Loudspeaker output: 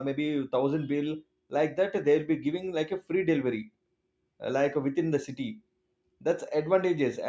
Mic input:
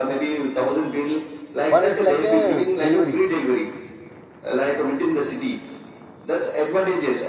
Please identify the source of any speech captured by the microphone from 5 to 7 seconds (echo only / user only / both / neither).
echo only